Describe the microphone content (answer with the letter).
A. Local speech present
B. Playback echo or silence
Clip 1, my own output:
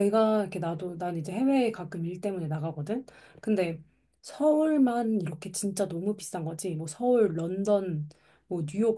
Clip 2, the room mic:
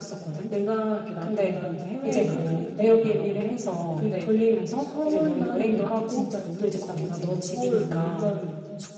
A